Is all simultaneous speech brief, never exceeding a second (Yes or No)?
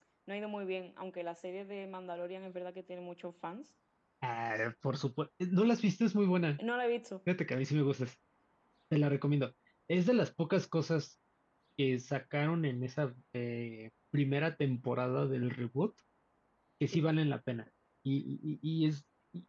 Yes